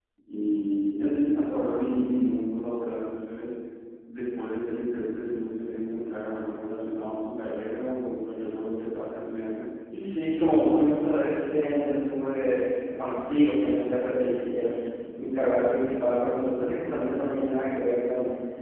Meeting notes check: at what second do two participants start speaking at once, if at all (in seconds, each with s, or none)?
none